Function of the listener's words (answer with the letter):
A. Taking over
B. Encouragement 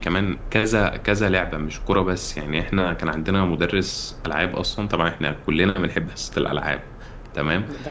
B